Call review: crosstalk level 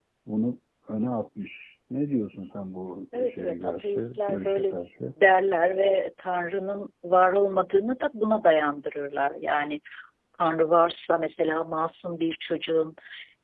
present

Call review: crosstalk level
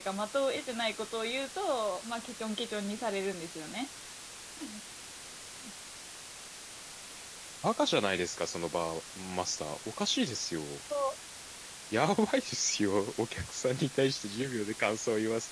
none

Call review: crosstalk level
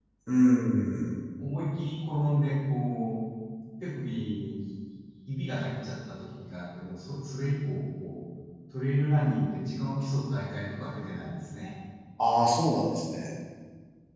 none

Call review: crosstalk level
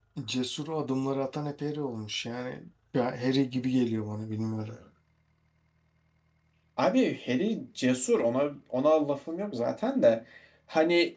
none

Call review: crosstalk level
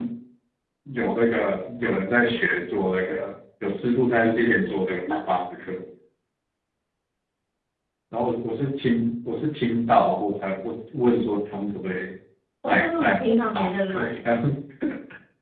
present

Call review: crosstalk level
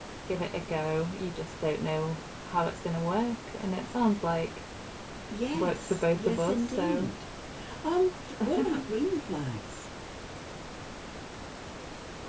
present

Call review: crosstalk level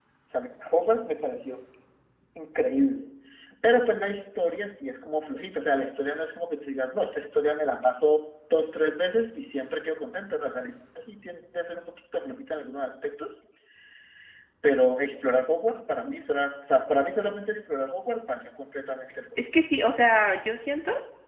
none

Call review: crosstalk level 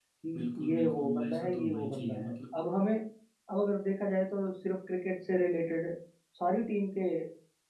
present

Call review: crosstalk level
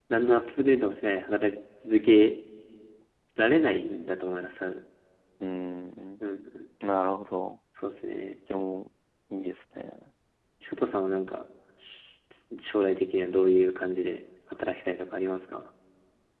none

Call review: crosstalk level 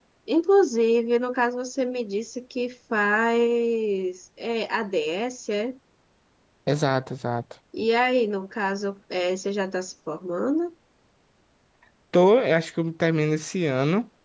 none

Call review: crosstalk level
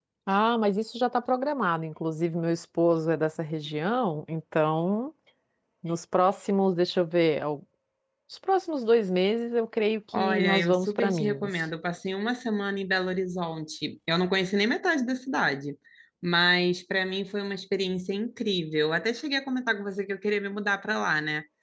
present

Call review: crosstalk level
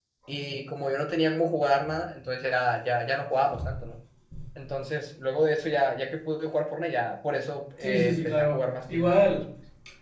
present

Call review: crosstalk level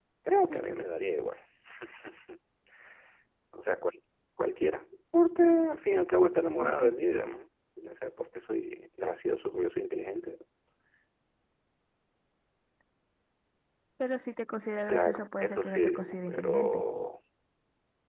present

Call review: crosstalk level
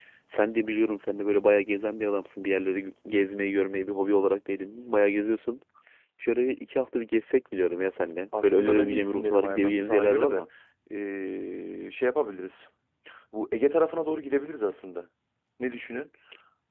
present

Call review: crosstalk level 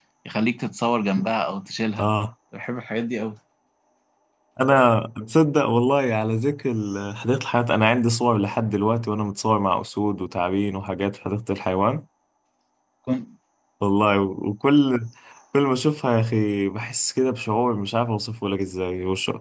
none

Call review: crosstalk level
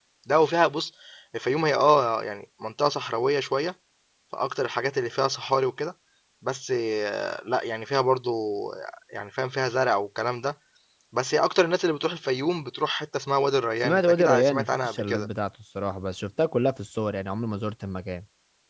present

